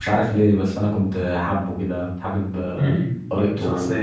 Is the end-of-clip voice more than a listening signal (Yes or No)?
Yes